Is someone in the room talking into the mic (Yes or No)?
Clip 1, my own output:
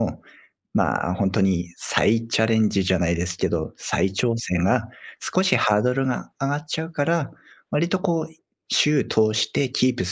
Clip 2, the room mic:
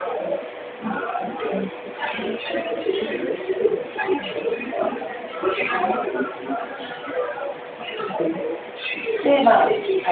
Yes